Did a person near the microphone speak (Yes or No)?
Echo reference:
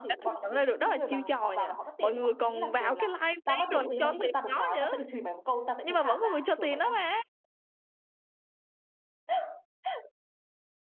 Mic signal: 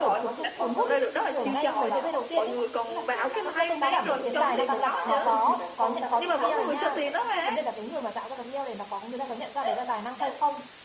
Yes